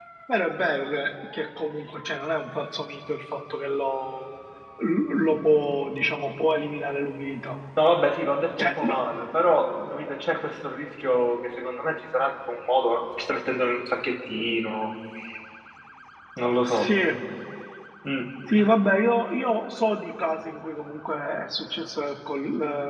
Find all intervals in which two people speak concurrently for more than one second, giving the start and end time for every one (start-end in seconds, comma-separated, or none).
none